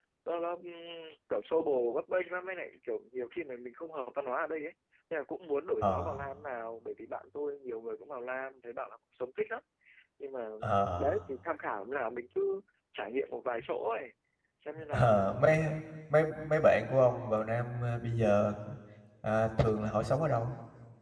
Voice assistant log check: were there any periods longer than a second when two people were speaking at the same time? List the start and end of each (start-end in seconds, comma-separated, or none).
none